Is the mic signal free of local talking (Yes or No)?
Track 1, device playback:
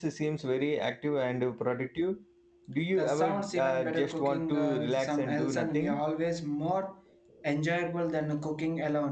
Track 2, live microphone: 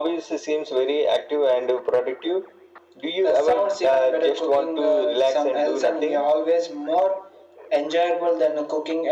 Yes